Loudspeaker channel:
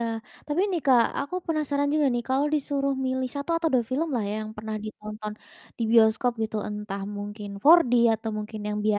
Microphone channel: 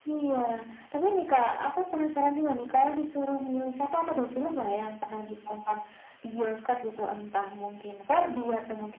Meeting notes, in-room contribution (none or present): none